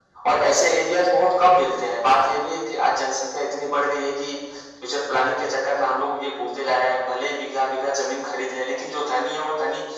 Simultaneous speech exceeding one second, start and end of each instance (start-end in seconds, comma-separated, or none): none